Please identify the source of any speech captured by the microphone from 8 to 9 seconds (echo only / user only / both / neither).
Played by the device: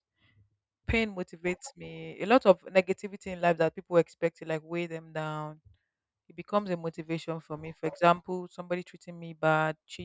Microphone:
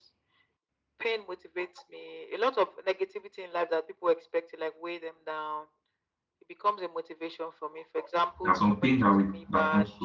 both